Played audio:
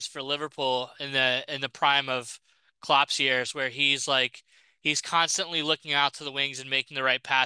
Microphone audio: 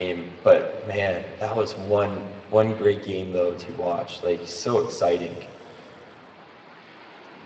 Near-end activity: present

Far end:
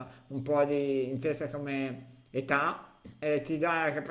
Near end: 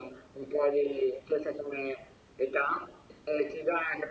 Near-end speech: none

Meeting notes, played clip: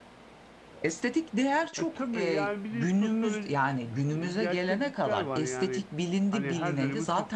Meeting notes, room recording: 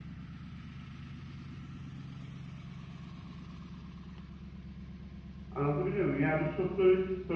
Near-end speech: present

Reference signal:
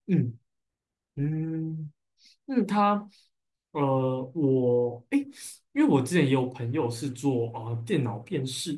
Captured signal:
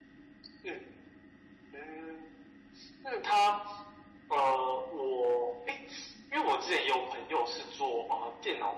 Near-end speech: none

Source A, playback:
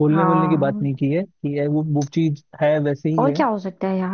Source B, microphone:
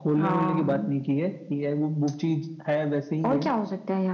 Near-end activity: none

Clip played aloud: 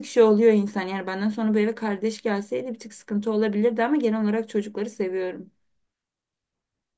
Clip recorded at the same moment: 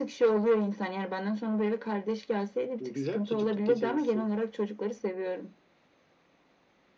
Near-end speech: present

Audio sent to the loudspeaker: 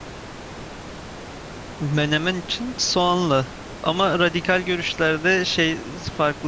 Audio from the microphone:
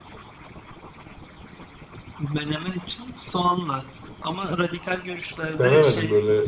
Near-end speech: present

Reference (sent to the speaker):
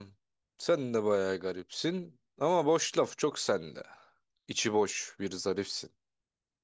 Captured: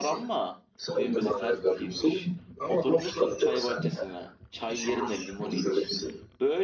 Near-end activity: present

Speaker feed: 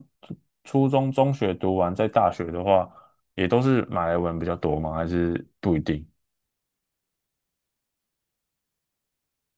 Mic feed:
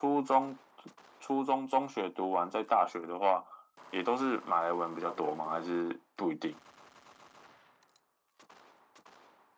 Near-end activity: present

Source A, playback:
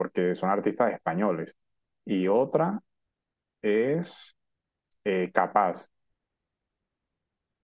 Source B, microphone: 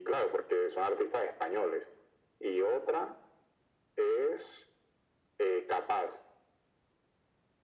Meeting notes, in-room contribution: none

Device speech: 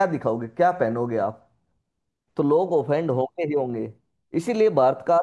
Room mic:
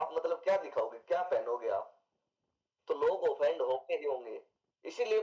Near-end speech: none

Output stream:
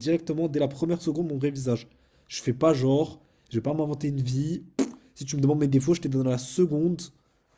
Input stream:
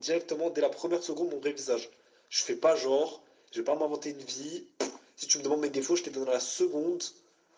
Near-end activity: none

